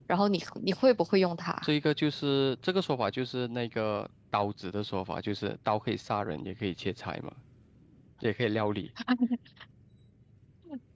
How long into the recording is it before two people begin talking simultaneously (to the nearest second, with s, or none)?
none